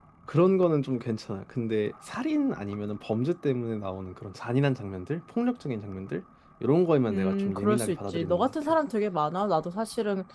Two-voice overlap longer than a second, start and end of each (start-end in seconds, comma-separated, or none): 7.1-8.5